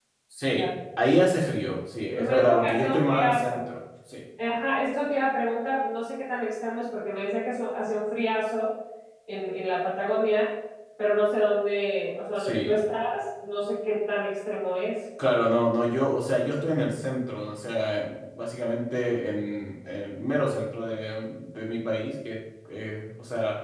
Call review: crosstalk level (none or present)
present